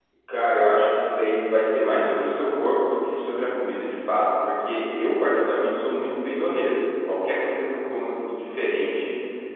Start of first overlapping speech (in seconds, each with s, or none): none